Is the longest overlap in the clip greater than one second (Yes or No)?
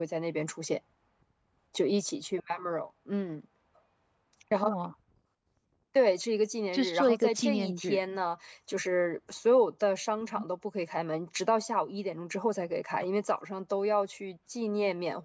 Yes